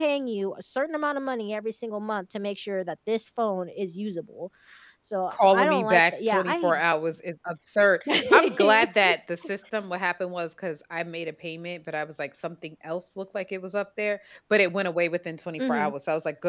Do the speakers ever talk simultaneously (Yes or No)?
Yes